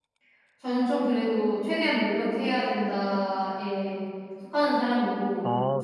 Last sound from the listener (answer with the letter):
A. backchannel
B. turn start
A